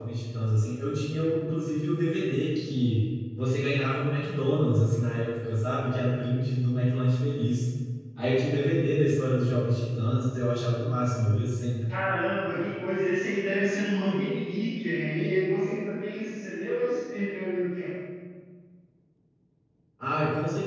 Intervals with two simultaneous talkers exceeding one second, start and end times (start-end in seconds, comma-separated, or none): none